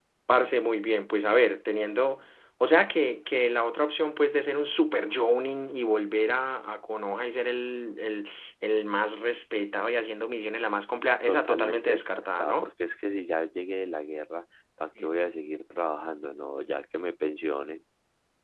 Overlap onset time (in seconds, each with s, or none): 11.3 s